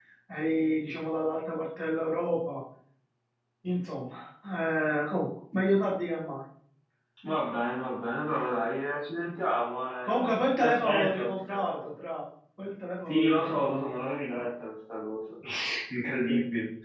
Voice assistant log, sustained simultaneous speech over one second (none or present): present